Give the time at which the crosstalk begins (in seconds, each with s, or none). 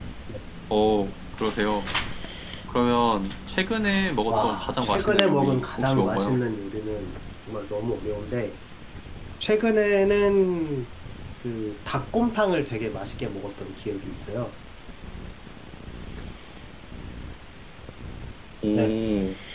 4.3 s